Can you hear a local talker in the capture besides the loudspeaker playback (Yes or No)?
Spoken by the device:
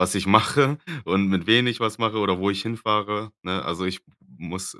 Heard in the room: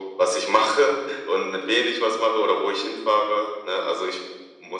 No